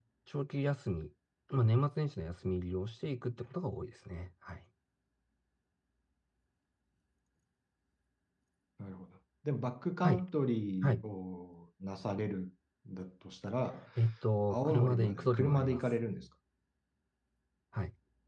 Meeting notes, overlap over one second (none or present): present